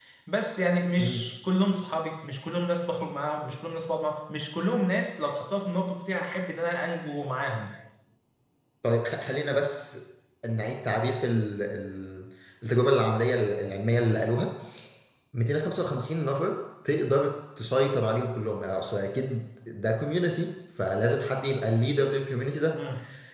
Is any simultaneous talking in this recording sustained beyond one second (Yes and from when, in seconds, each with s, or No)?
No